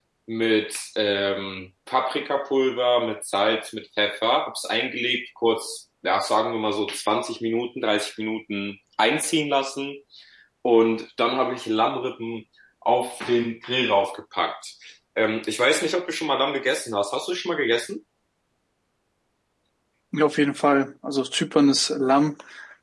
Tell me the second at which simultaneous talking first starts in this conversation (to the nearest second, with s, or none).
none